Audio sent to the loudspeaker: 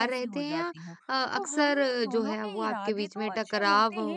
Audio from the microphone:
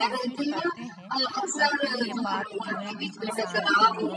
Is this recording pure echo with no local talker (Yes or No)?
No